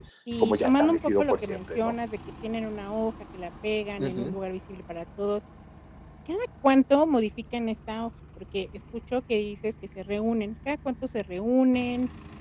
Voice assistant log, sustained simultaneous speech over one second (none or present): present